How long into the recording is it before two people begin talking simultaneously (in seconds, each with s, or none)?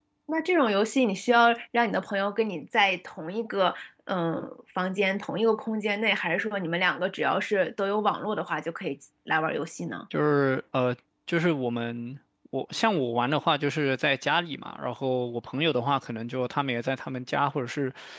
none